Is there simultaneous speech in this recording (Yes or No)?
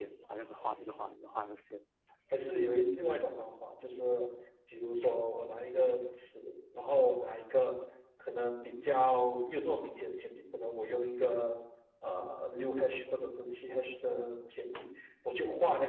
No